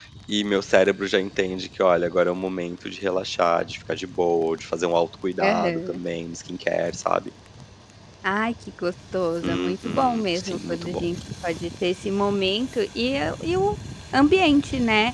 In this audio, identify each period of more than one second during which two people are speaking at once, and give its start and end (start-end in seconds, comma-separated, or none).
9.4-11.0